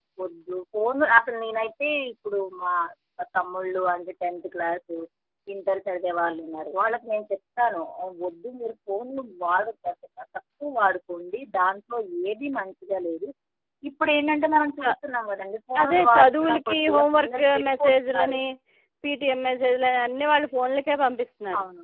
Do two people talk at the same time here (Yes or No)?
Yes